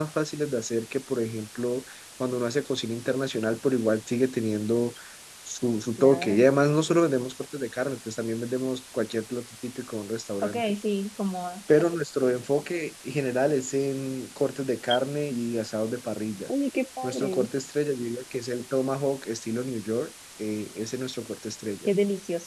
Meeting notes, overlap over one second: none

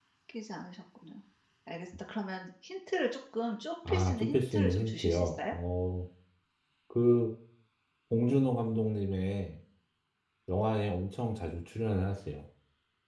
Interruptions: present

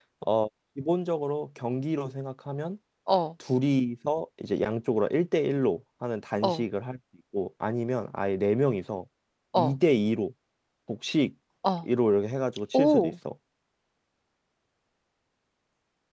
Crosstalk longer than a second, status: none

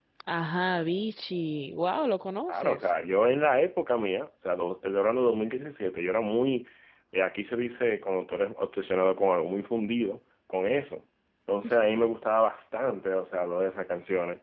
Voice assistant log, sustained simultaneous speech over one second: none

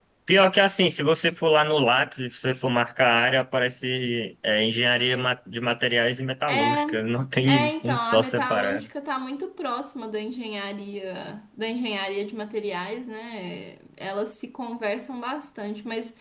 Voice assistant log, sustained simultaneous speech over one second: present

